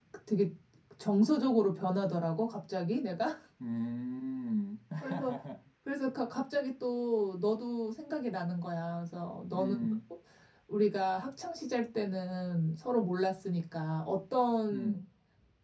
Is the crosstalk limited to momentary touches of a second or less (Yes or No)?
Yes